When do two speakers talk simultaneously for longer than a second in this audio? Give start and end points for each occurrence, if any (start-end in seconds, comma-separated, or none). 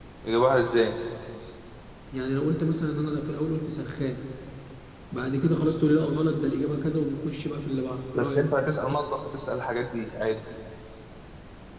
none